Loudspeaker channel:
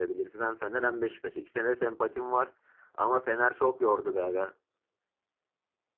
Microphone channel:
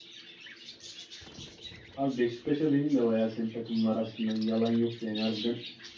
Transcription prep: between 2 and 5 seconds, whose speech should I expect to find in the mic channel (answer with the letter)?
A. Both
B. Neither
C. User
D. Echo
C